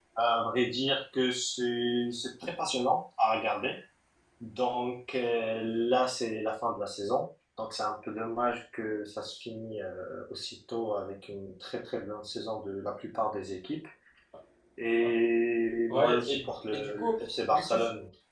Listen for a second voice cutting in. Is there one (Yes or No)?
Yes